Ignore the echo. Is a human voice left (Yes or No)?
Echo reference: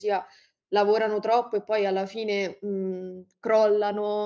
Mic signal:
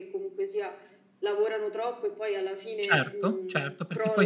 Yes